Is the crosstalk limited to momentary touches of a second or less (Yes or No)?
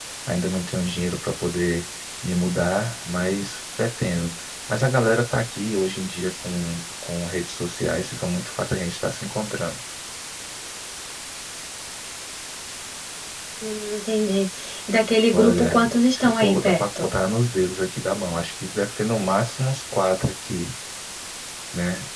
No